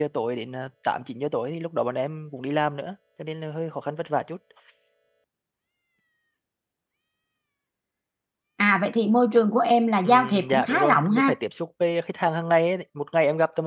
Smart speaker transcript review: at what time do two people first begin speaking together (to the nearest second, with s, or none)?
10 s